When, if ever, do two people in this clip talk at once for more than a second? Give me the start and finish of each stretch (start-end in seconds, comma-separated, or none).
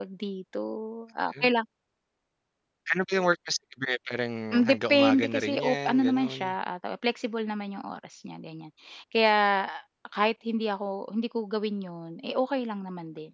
4.5-6.6